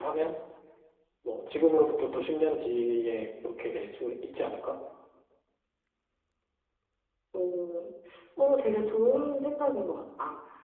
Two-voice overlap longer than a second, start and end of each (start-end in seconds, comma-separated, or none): none